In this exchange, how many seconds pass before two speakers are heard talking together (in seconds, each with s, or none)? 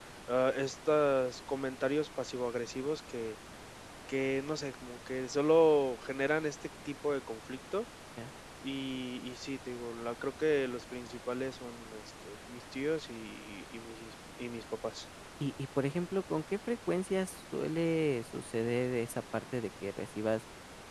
none